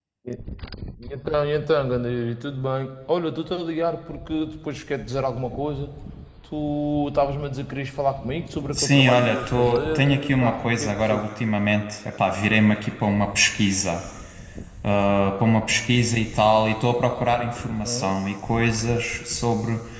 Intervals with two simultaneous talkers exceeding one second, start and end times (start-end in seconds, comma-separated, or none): 8.7-11.3